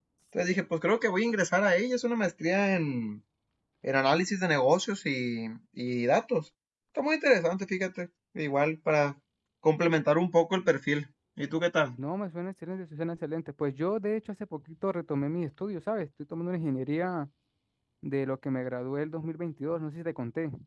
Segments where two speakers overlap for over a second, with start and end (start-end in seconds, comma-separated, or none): none